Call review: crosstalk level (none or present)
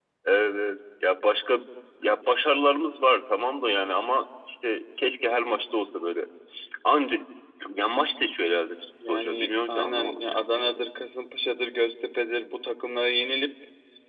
present